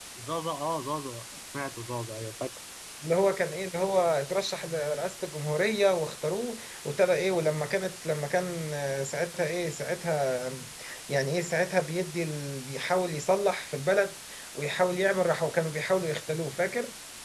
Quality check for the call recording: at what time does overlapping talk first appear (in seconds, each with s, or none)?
none